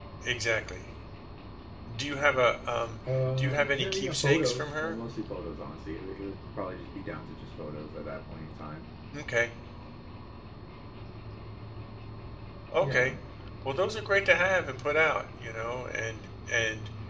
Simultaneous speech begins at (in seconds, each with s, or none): 3.4 s